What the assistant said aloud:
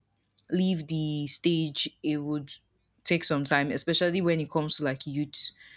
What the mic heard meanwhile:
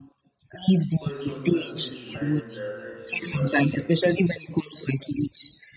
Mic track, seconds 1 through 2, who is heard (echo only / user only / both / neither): both